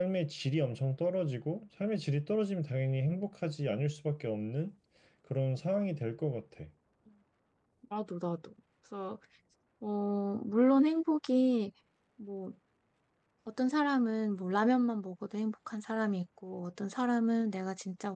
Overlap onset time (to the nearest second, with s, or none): none